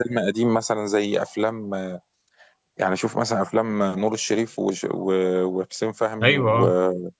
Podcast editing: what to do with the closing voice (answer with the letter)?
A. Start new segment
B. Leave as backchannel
B